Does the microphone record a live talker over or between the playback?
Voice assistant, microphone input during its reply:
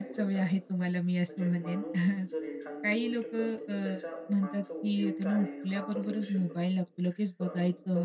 Yes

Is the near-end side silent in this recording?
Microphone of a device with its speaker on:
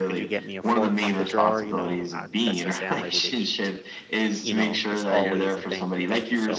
No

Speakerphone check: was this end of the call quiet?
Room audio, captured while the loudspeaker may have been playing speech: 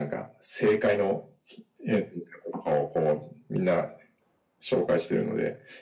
Yes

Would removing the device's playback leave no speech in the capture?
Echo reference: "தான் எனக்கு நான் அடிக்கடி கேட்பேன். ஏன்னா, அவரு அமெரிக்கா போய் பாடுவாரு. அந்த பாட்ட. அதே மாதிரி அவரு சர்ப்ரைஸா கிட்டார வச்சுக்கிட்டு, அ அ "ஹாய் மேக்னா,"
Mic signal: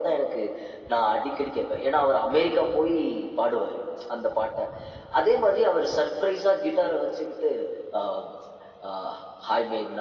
Yes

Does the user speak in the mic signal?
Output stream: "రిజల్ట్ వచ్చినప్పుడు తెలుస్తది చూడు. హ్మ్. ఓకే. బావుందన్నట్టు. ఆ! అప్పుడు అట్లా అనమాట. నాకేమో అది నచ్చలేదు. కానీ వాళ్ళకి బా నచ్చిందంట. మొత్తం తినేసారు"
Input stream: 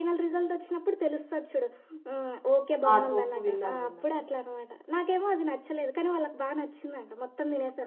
Yes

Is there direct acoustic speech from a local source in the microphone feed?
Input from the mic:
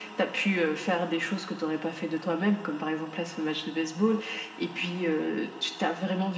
No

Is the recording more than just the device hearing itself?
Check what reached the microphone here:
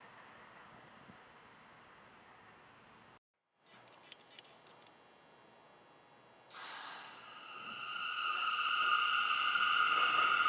No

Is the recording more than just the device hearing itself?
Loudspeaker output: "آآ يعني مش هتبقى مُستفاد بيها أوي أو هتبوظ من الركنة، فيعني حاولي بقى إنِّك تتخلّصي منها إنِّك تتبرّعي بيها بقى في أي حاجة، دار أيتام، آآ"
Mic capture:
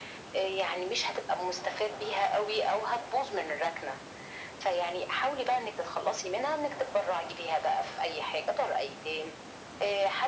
No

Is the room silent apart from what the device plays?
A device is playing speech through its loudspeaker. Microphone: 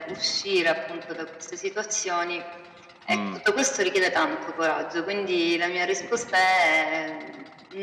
No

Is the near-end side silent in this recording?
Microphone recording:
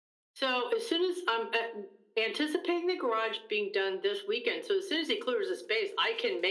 Yes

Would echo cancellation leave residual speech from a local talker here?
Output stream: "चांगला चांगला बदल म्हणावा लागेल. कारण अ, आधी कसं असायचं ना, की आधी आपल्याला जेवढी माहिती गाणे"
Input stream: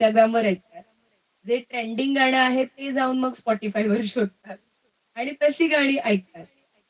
Yes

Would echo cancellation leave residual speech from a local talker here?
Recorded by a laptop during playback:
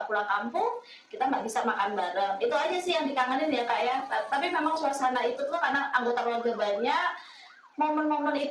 No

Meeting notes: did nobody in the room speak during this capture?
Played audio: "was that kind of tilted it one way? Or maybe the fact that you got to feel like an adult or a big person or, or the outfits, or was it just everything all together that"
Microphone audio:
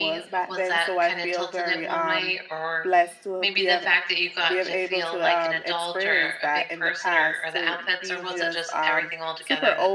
No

